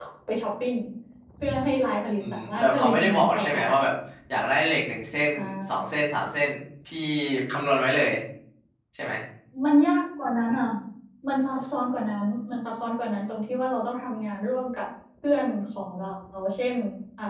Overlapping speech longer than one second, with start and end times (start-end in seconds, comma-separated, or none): 2.2-3.6